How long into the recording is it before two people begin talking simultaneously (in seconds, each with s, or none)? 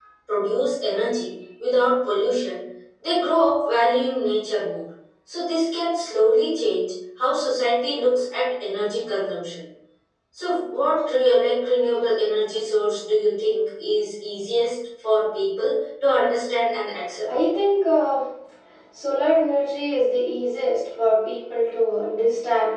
none